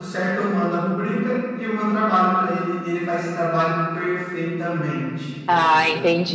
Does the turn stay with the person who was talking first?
No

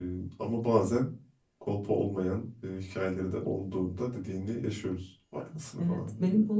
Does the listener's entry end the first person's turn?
Yes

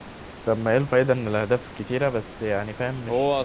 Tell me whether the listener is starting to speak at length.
Yes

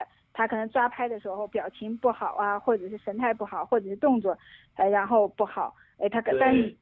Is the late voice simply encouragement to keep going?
Yes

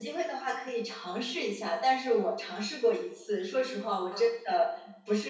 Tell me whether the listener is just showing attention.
Yes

